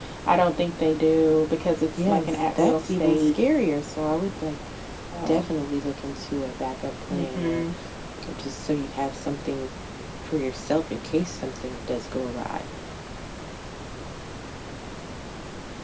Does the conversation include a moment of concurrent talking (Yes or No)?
Yes